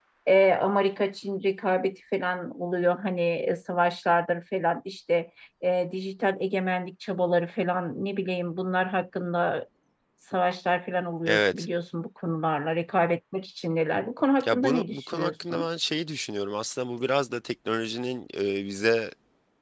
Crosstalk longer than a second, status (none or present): present